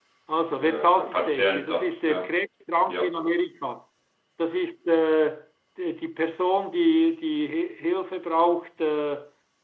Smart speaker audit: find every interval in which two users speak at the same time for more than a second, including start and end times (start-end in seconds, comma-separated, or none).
0.5-2.3